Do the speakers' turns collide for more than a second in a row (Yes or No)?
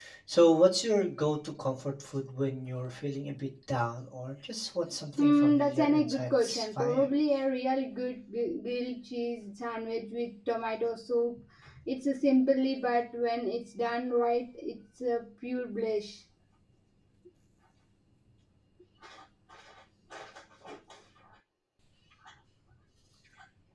Yes